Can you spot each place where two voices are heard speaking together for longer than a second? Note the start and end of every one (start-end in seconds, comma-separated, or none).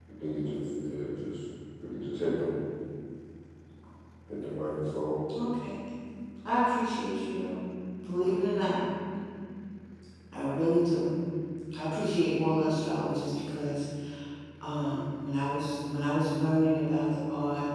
none